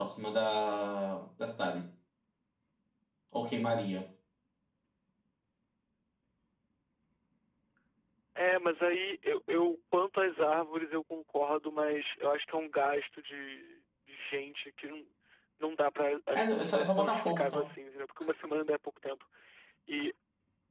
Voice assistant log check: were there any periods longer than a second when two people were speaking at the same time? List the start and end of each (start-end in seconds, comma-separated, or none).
16.3-17.7